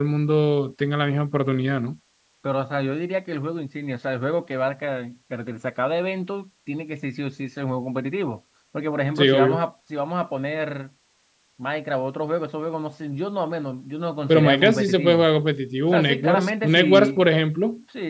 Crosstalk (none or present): present